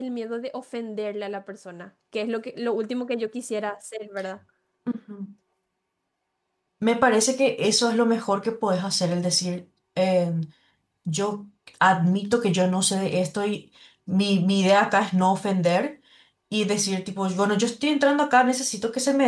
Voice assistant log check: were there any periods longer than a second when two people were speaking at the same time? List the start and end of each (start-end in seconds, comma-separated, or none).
none